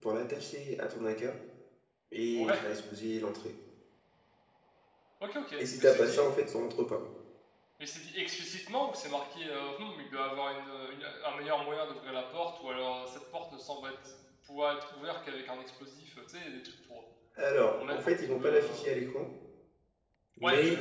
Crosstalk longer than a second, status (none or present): present